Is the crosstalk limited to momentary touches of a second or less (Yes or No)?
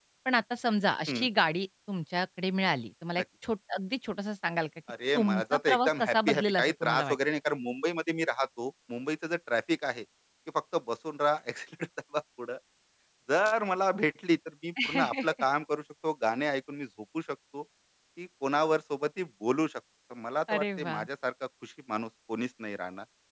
No